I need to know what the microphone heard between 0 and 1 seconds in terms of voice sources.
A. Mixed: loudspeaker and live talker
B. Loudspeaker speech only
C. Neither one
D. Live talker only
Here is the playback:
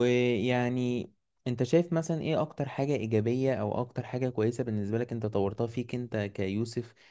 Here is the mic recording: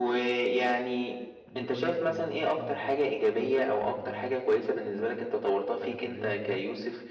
B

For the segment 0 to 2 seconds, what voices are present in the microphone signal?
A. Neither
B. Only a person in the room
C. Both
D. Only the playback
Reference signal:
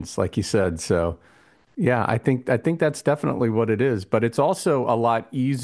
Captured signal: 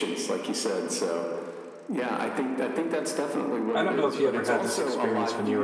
D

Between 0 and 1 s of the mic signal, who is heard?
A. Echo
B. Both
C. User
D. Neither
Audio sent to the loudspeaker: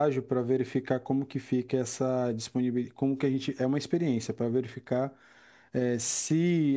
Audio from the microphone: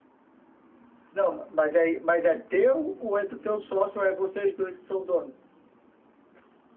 D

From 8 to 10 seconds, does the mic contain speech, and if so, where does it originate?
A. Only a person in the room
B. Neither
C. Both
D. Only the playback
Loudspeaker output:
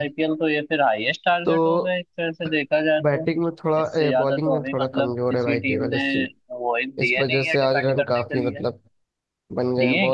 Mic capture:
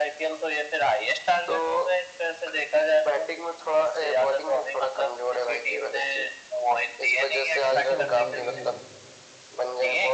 C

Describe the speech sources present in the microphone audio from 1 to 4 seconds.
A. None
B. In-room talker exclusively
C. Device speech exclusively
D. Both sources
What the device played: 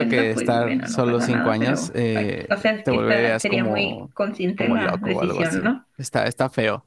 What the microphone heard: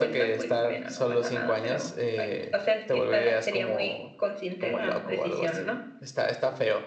C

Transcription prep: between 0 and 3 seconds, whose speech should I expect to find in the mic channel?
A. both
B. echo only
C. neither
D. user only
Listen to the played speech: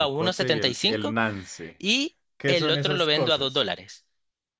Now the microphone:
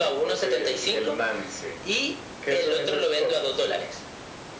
B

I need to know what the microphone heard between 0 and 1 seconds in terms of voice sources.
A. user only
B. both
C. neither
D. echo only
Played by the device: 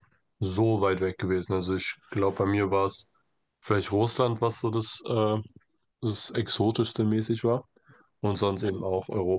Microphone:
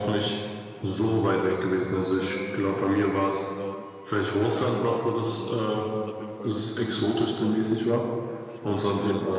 B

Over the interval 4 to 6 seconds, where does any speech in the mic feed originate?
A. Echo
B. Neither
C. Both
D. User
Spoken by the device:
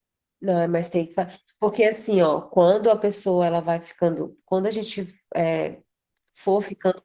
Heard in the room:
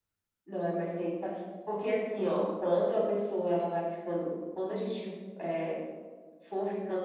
A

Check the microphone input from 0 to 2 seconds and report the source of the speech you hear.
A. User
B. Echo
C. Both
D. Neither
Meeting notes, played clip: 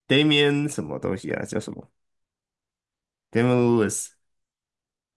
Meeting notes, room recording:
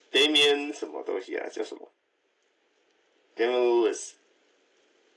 B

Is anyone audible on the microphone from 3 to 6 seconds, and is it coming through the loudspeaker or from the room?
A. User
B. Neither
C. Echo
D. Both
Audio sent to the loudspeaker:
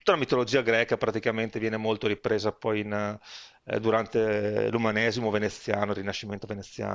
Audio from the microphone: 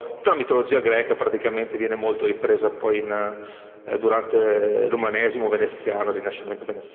C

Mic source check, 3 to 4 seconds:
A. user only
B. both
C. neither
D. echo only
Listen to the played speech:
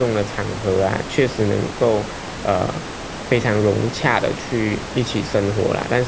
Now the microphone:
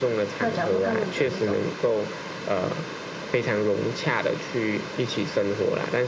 D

